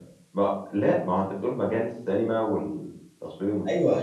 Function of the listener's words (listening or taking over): taking over